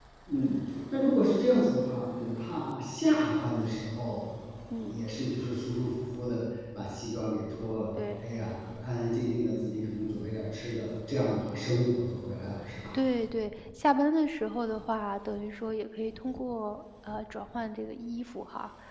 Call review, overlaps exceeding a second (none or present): none